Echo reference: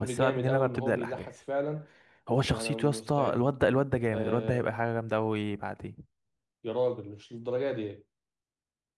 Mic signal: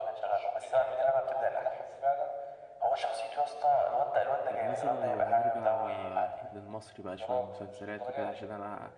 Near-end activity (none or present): present